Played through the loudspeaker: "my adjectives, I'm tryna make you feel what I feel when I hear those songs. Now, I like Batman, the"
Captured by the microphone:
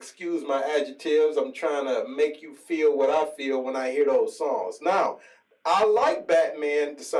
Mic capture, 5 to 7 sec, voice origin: echo only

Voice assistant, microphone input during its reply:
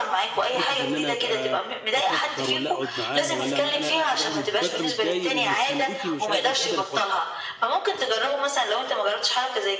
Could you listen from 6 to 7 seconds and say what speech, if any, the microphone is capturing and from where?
both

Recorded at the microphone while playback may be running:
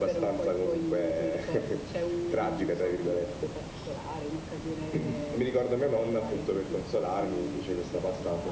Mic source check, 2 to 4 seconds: echo only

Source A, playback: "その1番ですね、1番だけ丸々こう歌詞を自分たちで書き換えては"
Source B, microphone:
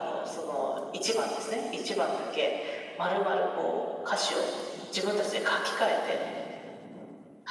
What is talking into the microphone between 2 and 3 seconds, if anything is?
echo only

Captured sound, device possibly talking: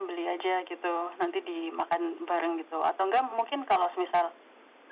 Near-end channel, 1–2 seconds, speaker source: echo only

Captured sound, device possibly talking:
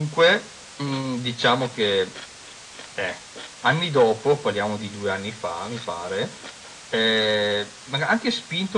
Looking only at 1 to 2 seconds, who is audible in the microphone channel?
echo only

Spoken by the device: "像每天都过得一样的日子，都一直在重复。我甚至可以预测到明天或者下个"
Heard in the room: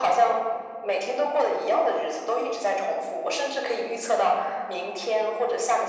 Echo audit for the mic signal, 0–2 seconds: echo only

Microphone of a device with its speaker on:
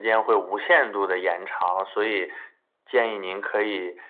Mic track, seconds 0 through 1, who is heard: echo only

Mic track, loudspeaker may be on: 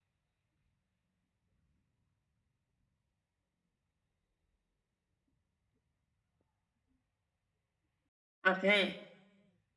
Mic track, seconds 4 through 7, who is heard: neither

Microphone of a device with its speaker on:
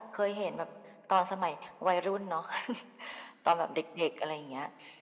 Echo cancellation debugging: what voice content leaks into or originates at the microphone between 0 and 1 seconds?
echo only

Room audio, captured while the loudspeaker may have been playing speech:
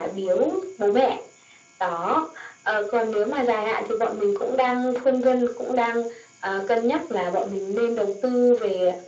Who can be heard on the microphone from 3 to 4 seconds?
echo only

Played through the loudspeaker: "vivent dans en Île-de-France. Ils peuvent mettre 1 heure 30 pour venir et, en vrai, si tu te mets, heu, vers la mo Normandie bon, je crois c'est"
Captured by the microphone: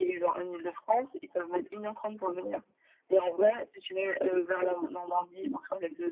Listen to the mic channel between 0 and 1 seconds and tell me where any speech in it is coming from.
echo only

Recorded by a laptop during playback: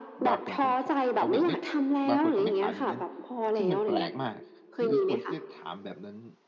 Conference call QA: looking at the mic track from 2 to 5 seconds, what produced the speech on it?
both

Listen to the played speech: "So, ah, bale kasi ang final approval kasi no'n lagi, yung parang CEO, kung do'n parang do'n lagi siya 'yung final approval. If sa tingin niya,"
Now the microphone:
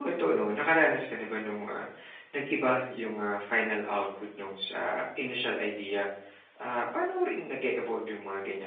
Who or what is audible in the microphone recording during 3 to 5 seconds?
user only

